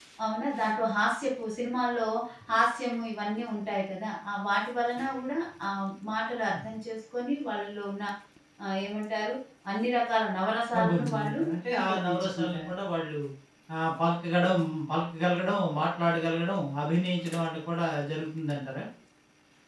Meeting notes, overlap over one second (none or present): present